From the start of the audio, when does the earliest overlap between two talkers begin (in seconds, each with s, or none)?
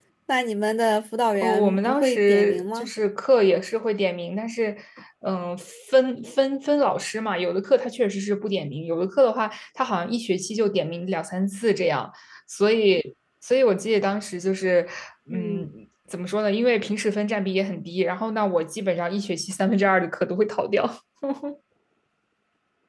1.3 s